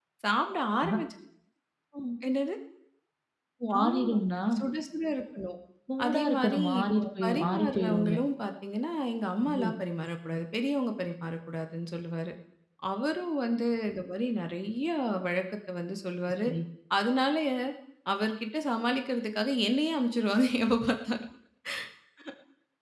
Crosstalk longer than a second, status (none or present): present